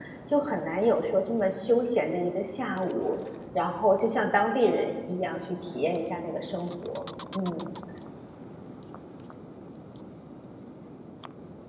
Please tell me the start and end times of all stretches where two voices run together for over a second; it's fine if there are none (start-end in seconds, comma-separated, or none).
none